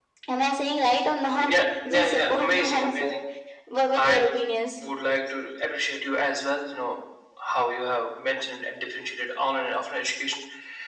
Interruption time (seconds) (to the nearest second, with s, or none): 1 s